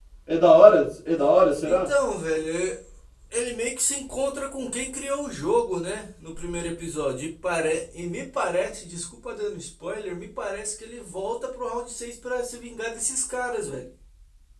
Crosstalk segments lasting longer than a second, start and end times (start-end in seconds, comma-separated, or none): none